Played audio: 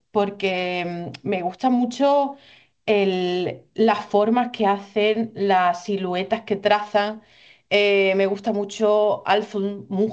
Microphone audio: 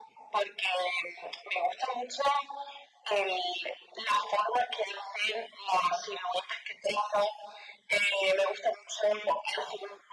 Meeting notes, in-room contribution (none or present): none